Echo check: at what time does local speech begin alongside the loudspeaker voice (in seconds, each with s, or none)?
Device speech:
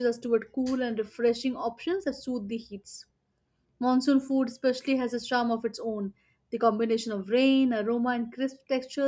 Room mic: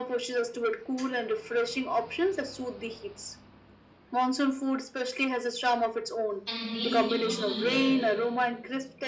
6.4 s